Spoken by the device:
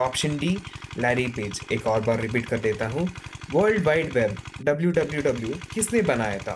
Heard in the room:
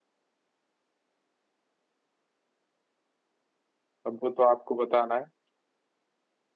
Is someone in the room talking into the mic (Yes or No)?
Yes